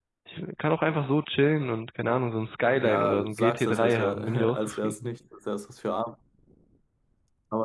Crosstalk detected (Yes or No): Yes